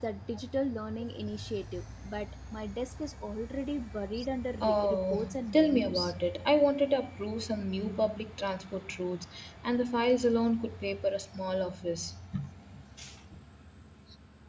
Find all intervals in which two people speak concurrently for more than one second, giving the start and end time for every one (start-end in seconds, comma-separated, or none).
4.6-6.0